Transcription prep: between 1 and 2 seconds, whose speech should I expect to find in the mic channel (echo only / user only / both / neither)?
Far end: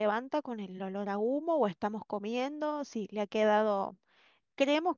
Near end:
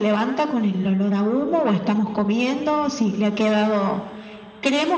echo only